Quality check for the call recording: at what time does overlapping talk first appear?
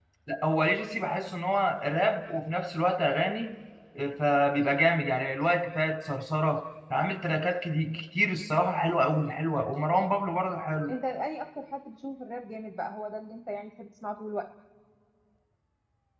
none

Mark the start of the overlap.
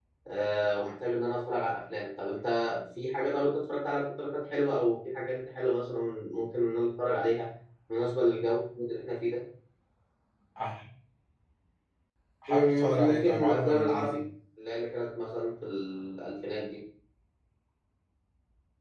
12.5 s

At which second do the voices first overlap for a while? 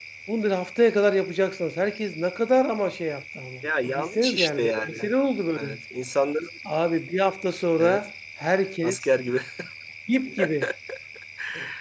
3.6 s

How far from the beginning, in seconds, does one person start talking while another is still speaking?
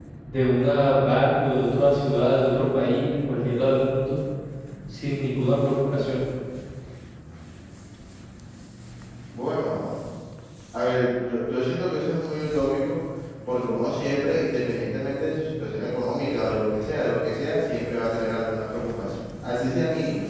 none

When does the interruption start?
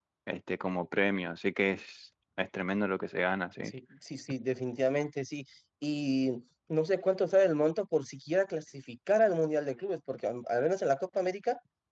none

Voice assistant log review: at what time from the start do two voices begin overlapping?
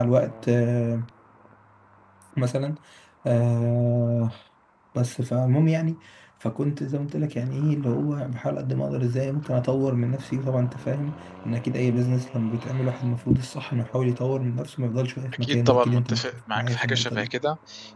15.3 s

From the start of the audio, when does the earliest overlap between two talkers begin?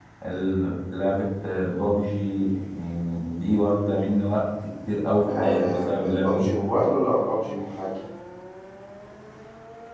5.3 s

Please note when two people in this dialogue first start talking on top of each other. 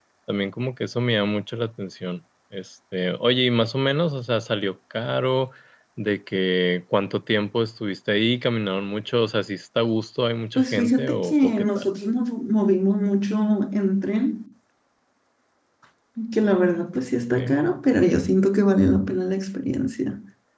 10.6 s

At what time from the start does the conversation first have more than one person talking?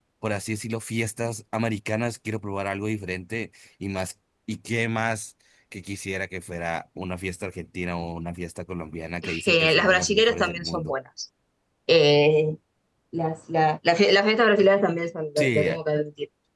9.4 s

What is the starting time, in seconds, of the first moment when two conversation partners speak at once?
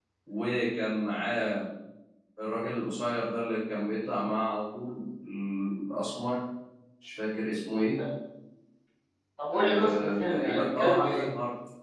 9.5 s

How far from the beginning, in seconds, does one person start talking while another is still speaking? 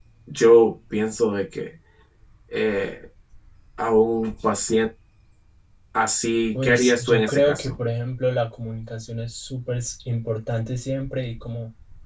6.5 s

